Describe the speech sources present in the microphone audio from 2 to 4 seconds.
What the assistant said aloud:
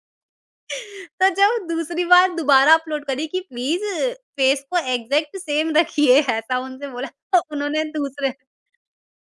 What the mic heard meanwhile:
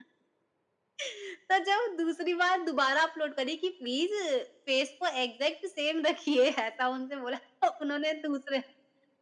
echo only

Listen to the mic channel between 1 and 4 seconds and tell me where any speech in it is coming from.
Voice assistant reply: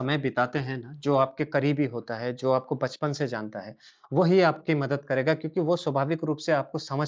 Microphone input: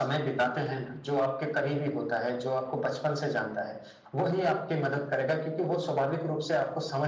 echo only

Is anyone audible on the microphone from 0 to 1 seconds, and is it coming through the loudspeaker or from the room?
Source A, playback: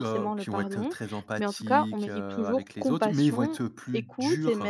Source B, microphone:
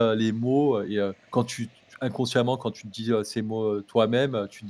user only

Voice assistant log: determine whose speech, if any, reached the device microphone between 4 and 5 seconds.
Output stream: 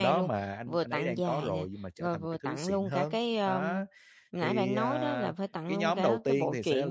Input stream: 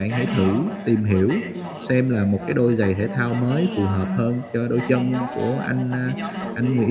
both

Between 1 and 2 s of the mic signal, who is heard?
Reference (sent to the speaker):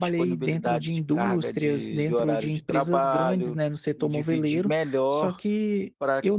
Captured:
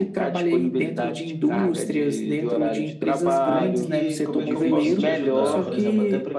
echo only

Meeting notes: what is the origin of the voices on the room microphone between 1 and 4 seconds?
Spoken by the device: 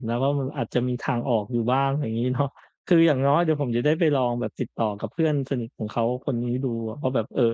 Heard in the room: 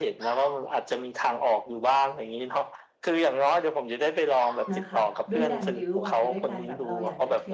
echo only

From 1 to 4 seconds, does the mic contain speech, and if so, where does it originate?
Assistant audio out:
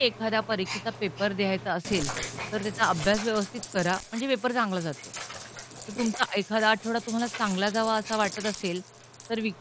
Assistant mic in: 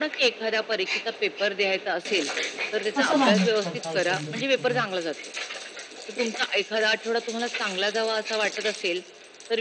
both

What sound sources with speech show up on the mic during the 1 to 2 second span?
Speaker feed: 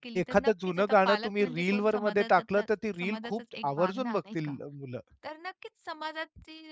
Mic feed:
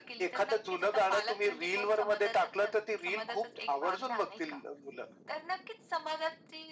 echo only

